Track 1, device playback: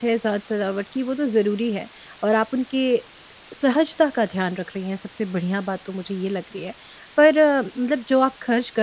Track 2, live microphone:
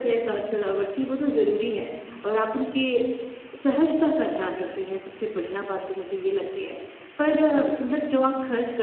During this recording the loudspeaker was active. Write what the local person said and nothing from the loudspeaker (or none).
none